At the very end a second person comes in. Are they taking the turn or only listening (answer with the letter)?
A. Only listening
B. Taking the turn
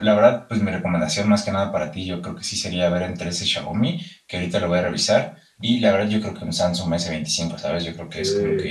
B